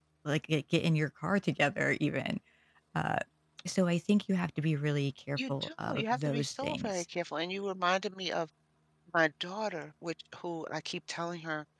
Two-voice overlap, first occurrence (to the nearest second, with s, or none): 5 s